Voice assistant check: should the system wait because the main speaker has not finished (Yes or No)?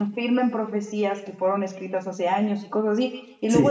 Yes